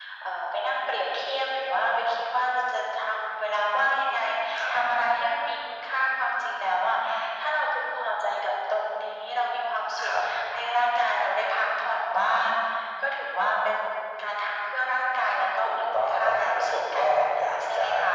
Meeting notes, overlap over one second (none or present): present